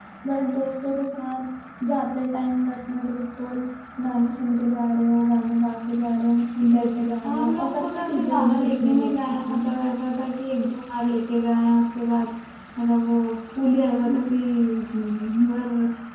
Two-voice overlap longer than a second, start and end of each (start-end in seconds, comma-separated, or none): 6.7-9.6